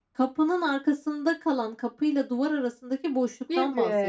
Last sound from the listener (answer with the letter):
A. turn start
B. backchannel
A